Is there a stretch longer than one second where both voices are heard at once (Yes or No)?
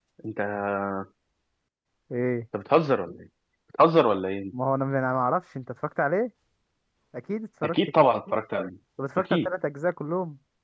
No